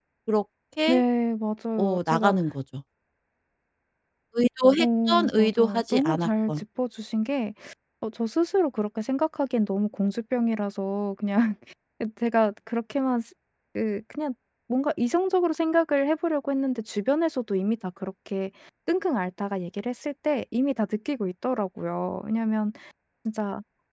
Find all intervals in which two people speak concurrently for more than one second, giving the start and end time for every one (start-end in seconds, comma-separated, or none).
4.8-6.6